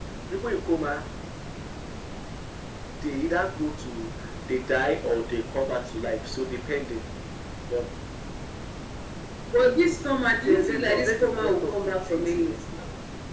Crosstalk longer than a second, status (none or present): present